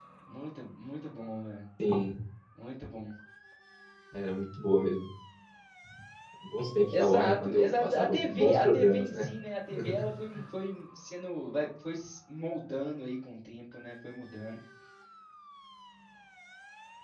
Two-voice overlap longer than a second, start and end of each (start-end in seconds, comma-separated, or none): 6.9-9.3